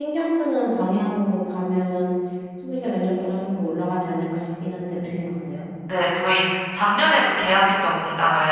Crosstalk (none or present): none